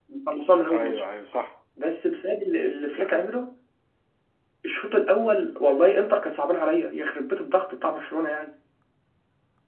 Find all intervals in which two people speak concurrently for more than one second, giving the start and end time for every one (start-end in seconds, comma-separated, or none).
none